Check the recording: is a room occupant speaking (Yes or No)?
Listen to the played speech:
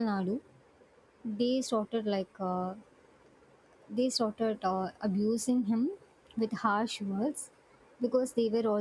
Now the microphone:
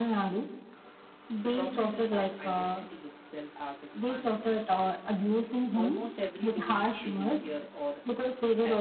Yes